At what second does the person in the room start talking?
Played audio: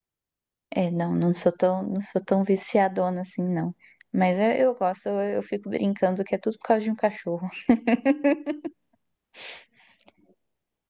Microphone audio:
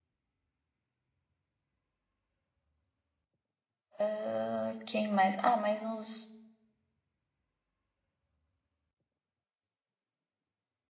4.0 s

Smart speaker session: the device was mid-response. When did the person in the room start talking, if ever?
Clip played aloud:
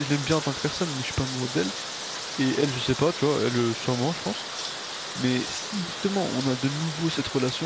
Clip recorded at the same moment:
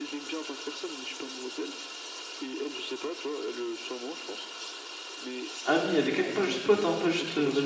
5.6 s

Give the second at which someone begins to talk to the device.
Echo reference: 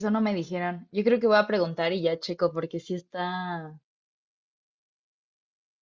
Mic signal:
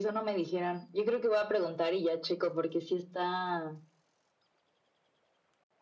none

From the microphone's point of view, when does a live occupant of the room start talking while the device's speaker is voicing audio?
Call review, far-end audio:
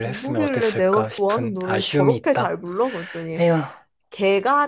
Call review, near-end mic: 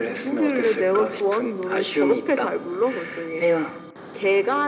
none

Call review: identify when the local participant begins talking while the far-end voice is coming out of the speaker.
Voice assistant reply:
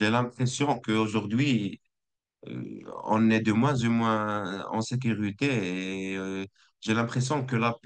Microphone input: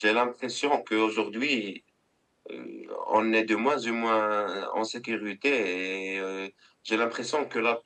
none

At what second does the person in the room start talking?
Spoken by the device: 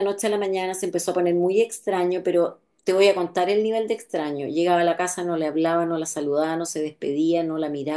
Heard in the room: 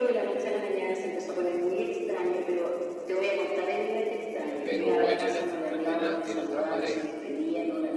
4.6 s

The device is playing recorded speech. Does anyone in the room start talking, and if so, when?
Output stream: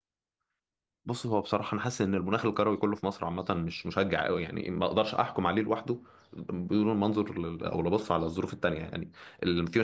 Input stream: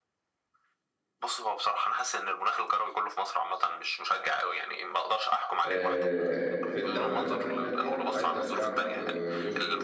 5.6 s

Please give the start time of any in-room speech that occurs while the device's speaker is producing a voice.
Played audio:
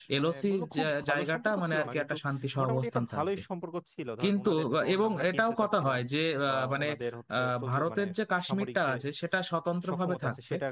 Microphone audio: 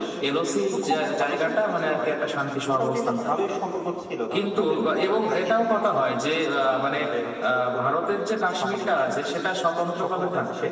none

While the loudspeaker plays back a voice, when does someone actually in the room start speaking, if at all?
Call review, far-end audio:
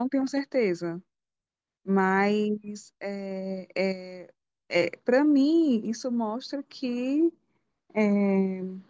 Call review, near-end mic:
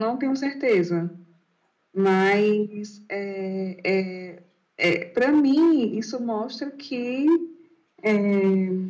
none

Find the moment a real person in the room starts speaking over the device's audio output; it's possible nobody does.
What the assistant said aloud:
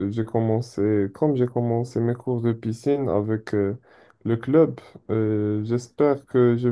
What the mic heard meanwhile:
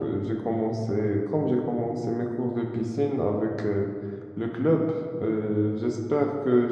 none

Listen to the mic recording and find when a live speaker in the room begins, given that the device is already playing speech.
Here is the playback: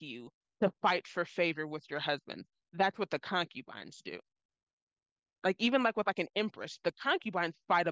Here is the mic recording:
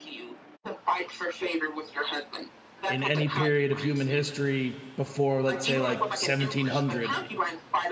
2.9 s

